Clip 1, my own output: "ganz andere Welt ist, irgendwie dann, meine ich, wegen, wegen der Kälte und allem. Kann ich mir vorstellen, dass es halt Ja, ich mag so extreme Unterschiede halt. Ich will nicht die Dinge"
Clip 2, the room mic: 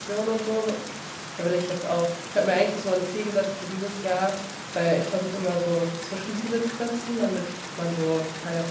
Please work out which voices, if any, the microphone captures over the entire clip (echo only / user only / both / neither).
user only